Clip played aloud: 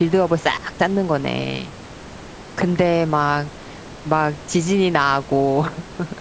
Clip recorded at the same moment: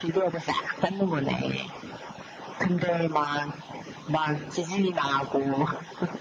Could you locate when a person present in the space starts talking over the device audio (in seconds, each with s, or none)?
none